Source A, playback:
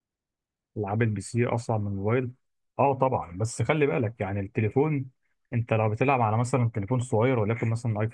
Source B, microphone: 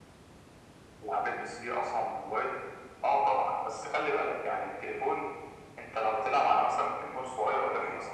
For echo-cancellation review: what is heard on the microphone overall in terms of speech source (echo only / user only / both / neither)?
echo only